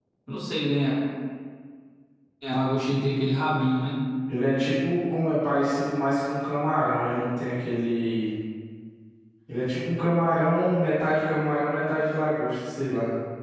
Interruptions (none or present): none